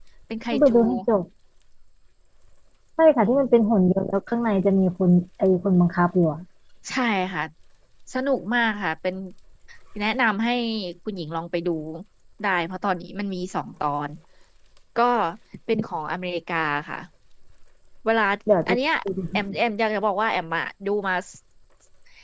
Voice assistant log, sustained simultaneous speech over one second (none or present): none